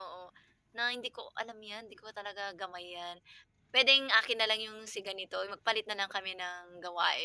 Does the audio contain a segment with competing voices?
No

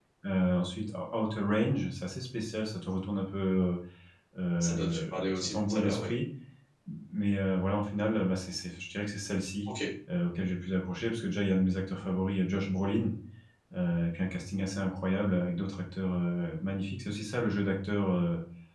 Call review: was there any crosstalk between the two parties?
Yes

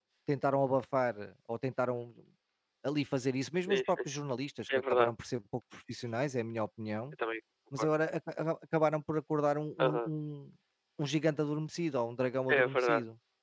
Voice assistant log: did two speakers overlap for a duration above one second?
No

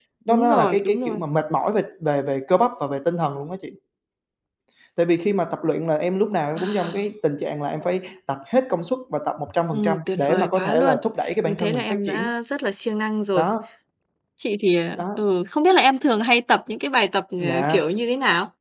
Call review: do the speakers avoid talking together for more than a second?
No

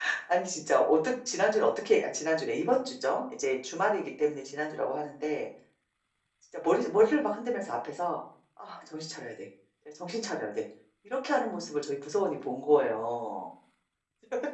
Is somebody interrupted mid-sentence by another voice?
No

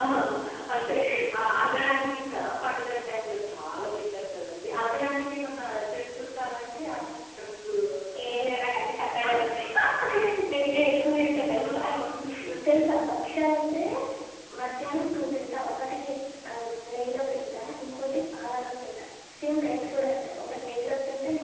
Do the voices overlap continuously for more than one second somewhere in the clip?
No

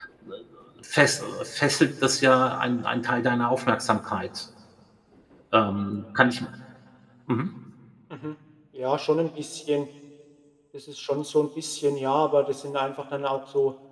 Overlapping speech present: No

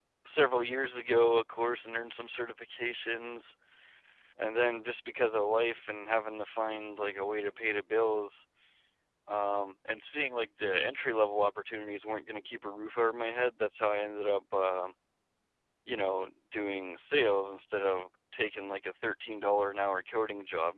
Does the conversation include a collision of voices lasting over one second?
No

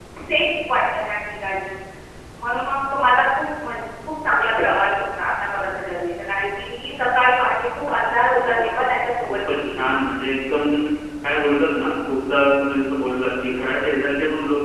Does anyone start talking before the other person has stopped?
Yes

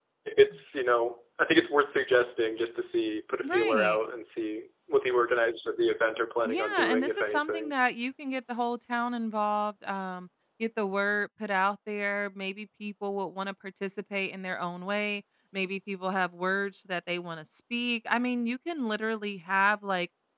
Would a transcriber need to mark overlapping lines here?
Yes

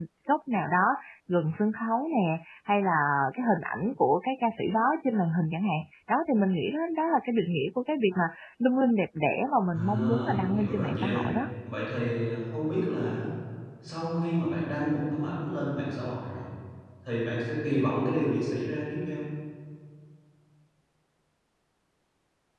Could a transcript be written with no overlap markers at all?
No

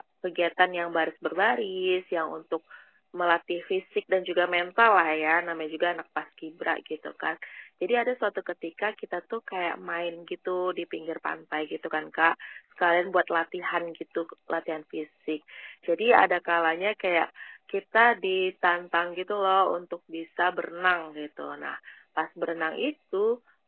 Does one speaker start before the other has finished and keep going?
No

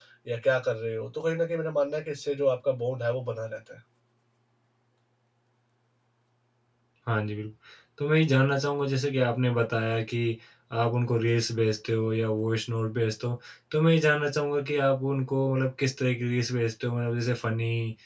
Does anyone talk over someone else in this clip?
No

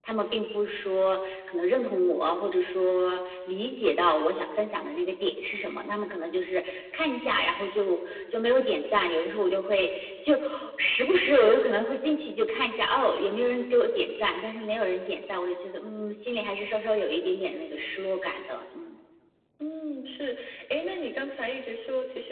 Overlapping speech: No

